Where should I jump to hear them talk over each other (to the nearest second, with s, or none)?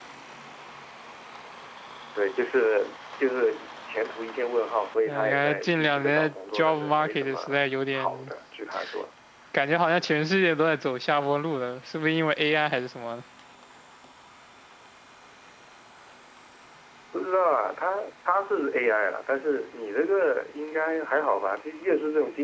5 s